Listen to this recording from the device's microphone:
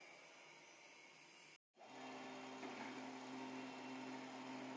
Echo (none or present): none